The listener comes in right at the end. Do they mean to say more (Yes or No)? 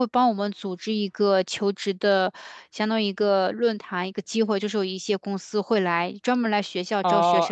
Yes